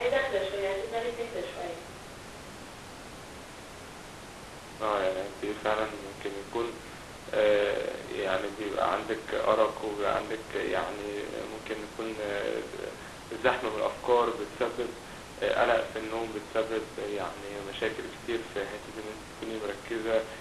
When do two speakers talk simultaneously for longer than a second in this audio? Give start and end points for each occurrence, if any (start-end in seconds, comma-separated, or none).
none